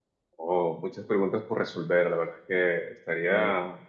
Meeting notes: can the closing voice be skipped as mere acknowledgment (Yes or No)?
Yes